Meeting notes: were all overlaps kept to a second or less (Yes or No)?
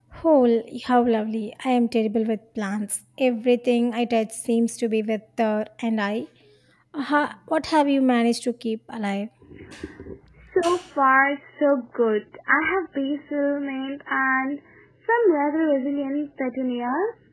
Yes